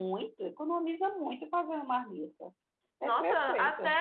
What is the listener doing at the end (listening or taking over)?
taking over